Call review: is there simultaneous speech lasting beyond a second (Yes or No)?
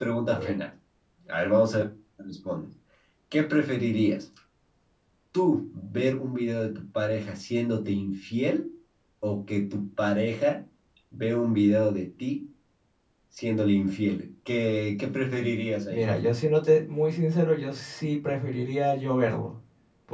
No